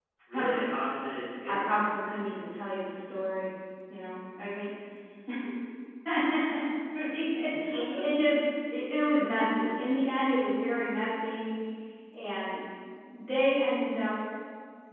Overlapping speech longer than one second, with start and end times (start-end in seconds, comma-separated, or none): none